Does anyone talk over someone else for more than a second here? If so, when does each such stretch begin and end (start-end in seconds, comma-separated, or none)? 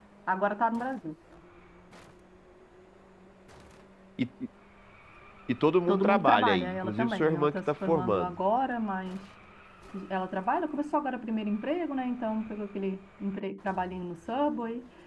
5.9-8.4